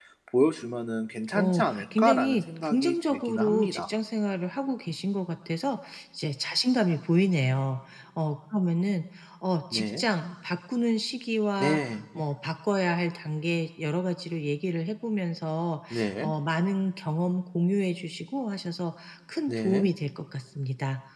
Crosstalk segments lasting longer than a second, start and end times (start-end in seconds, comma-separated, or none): 1.3-3.9